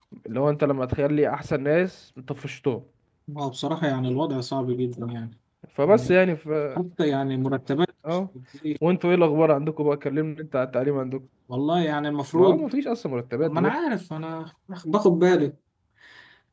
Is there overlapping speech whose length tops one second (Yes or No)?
No